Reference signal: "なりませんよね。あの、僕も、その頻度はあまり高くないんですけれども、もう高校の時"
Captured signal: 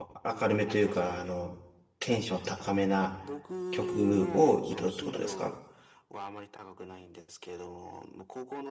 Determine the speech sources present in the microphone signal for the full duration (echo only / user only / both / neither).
both